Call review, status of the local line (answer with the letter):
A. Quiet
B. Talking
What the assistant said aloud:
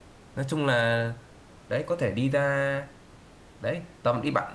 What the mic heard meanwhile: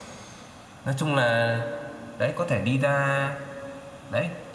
A